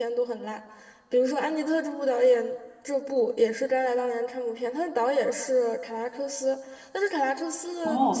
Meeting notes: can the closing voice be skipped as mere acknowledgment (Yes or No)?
No